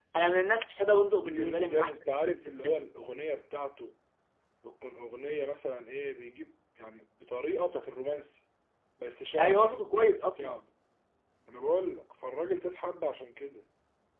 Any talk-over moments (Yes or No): Yes